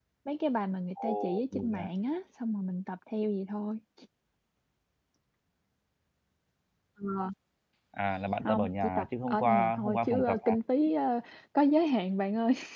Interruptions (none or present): present